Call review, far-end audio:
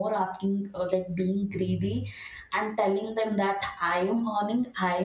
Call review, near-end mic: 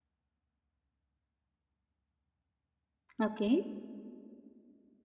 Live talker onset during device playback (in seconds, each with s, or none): 3.2 s